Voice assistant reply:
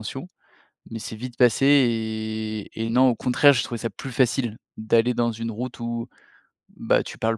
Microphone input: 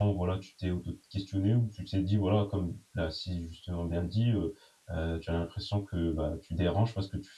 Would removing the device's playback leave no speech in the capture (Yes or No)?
No